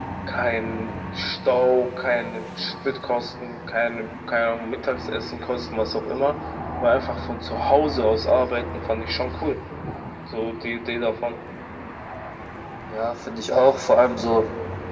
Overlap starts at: none

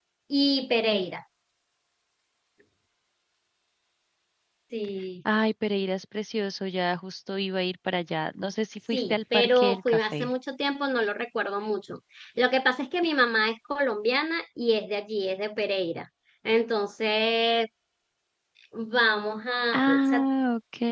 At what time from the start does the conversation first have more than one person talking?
9 s

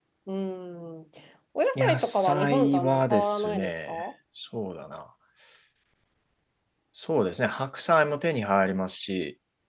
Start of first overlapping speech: 2 s

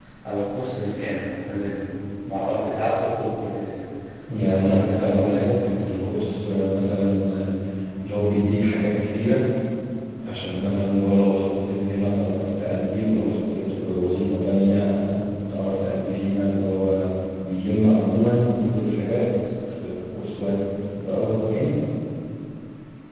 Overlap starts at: 4 s

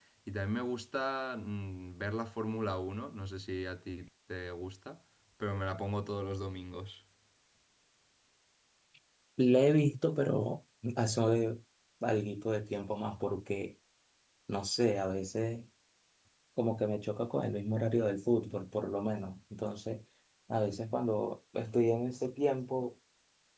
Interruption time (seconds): none

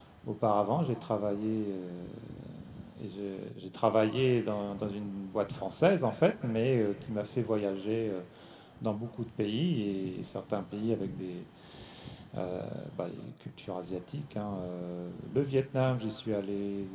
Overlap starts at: none

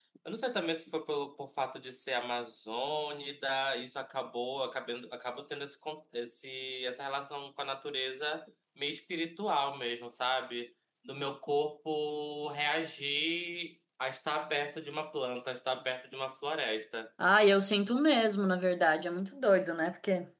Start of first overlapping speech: none

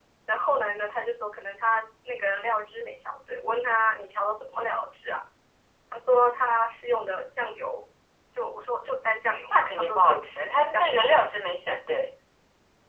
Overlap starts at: 9 s

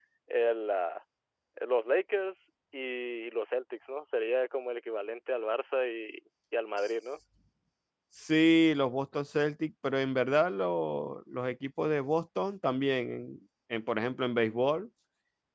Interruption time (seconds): none

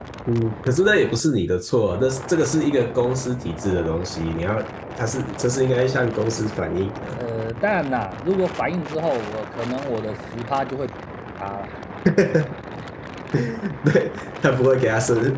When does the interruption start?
none

